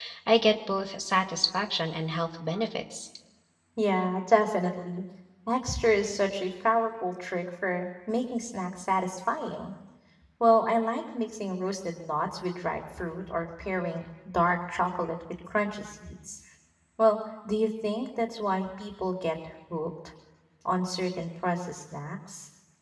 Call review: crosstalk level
none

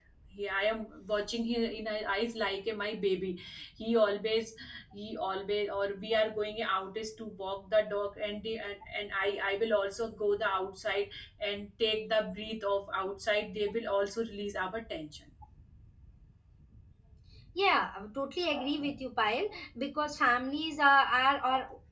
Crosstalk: none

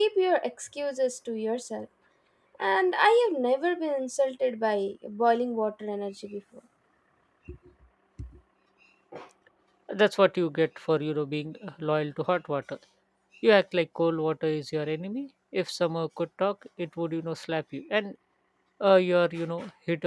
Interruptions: none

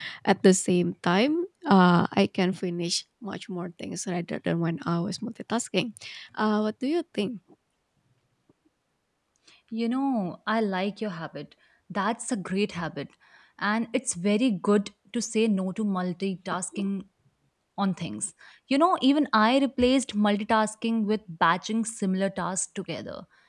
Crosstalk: none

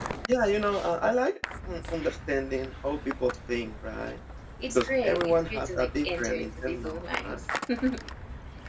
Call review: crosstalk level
present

